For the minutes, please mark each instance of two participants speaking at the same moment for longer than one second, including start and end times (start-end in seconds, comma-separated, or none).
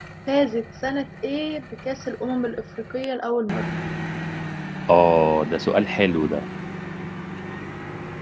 none